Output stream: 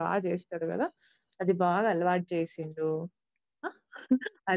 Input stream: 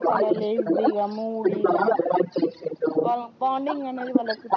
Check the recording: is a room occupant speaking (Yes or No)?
Yes